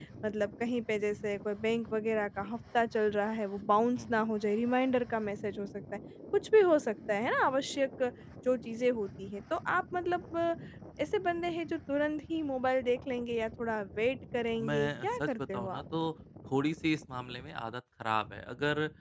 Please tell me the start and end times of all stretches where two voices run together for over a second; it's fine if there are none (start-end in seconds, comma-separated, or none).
14.6-15.8